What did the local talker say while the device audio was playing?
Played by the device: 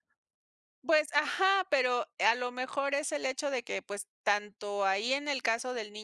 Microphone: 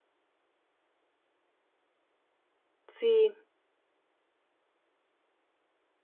sí,

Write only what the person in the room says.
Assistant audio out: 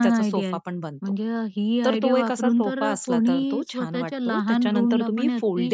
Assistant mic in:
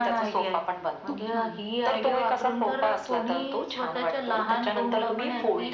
खूप छान.

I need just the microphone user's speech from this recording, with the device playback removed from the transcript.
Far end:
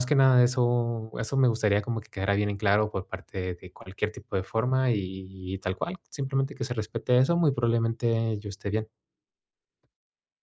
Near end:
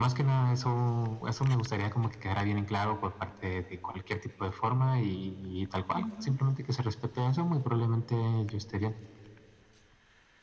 Ujú.

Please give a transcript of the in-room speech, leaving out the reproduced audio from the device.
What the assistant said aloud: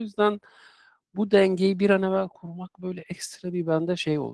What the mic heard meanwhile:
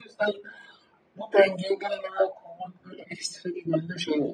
none

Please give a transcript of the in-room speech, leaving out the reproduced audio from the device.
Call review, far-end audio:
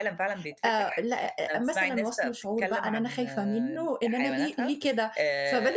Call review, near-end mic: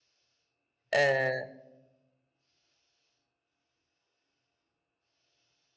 آآ،

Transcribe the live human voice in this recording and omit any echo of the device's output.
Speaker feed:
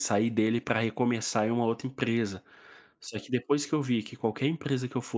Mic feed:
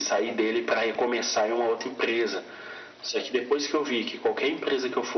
none

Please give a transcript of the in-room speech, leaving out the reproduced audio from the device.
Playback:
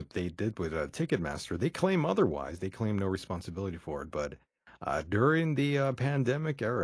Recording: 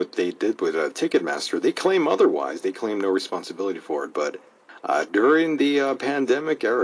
none

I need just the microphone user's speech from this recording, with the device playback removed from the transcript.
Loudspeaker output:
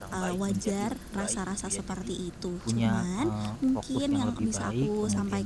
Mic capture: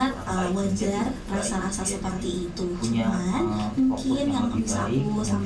none

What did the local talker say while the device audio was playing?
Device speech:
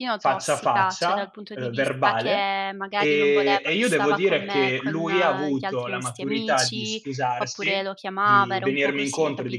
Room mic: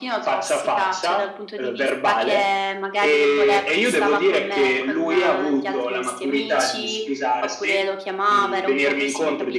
none

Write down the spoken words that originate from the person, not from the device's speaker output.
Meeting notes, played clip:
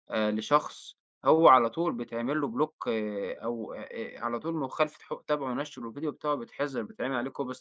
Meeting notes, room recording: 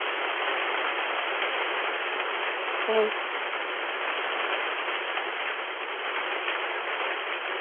فهمتِك.

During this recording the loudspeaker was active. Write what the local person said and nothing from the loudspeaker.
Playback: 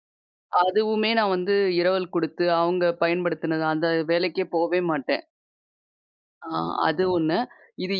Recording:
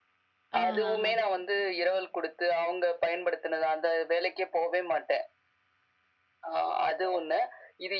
ஆஹஹா.

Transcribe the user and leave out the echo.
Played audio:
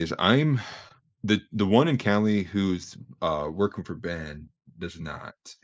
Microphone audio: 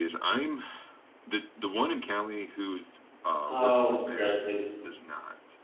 Oh, congratulations.

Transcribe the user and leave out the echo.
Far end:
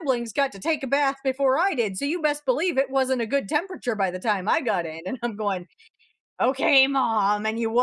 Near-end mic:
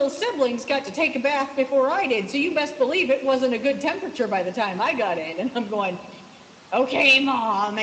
none

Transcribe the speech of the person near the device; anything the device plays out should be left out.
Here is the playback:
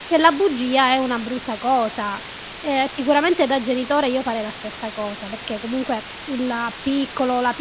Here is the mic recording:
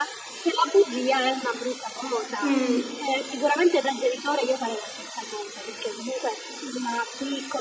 Mh.

